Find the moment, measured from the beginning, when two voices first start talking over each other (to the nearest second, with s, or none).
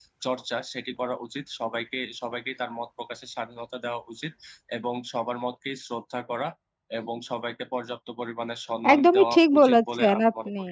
9 s